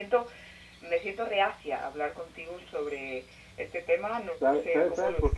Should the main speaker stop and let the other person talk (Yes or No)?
Yes